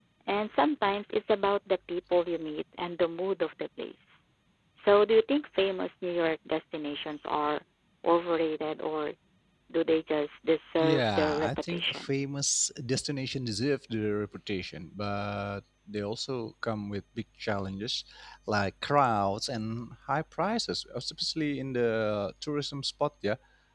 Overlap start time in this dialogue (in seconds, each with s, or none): 10.8 s